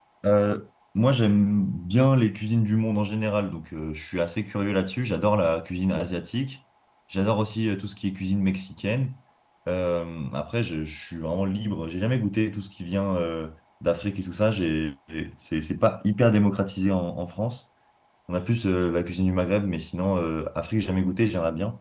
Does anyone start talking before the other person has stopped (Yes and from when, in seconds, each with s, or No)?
No